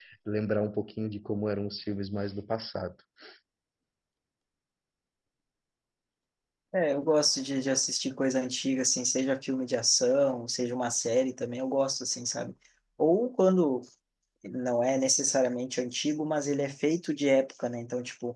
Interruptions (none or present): none